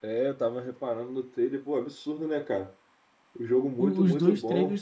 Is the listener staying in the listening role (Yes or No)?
No